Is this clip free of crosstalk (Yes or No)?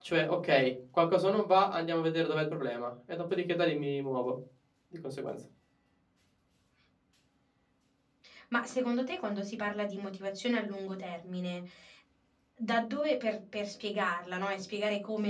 Yes